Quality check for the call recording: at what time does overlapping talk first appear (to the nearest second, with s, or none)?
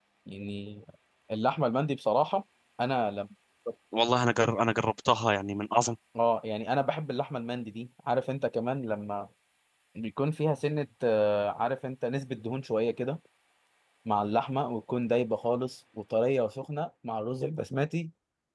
none